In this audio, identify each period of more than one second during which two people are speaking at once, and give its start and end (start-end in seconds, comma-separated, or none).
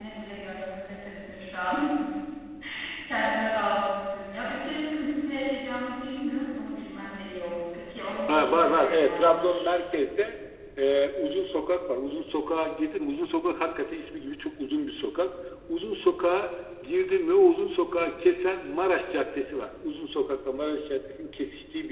8.3-9.7